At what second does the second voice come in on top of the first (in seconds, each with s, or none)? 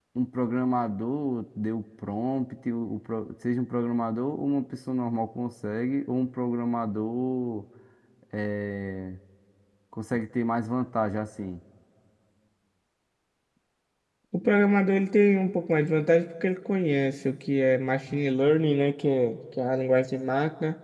none